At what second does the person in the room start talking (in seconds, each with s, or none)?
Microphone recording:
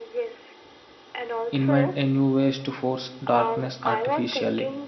1.5 s